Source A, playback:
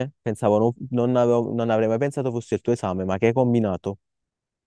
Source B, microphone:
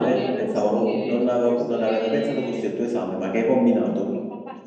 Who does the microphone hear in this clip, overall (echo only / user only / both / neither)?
both